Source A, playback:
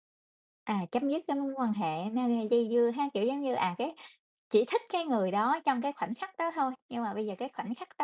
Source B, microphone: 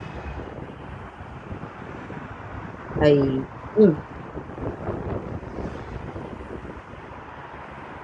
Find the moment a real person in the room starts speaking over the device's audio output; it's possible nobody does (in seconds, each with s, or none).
3.0 s